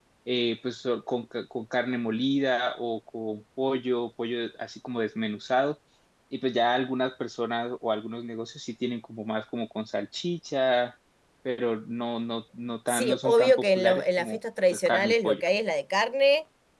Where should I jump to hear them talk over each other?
12.9 s

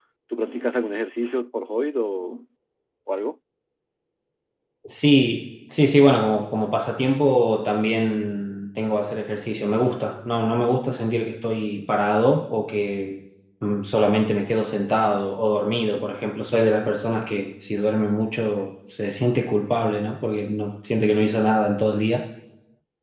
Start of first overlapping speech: none

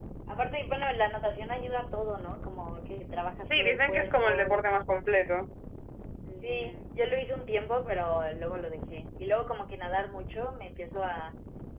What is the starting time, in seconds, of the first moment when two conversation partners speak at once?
3.4 s

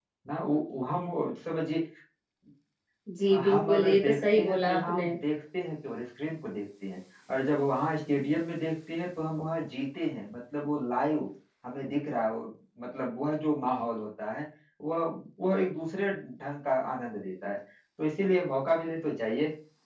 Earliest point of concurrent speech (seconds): 3.5 s

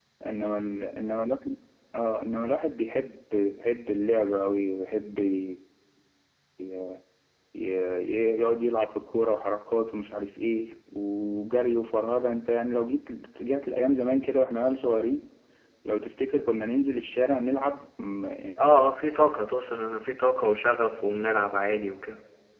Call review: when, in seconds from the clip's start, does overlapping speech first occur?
none

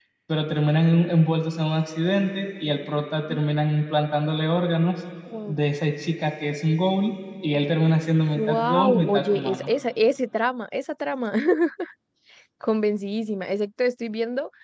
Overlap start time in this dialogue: 8.3 s

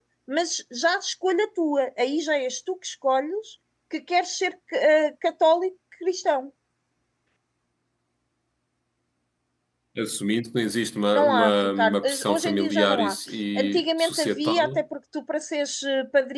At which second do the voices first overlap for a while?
11.1 s

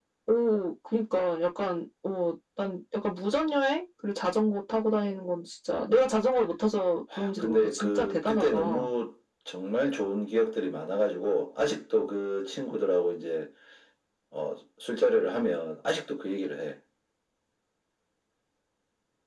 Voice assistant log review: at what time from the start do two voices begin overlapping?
7.4 s

